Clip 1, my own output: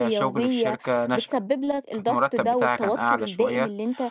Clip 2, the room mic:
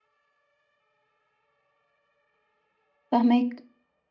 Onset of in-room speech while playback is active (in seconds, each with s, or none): 3.1 s